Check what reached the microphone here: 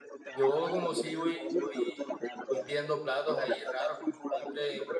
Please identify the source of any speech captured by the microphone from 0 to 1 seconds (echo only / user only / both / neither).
both